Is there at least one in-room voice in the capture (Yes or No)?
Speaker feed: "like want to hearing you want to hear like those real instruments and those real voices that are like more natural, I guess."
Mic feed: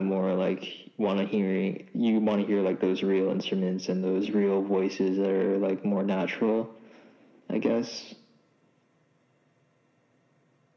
No